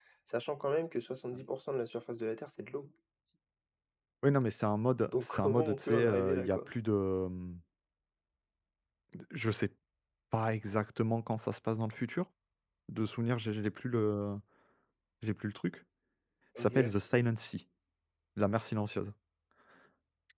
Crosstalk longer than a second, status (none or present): present